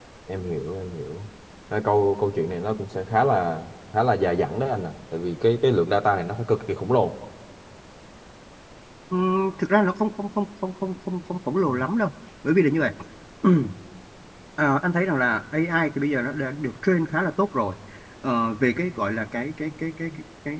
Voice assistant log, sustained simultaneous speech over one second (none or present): none